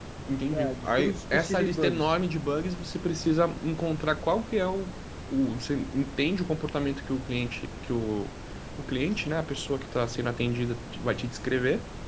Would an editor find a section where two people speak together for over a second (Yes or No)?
Yes